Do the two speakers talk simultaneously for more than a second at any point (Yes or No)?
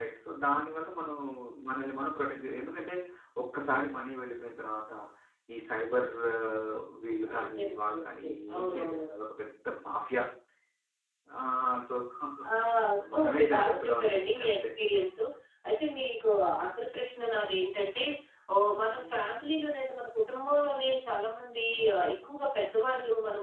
Yes